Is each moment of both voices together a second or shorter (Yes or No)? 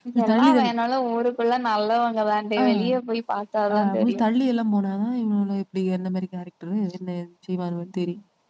Yes